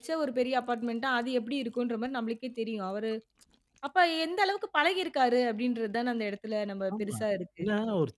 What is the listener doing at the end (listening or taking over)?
taking over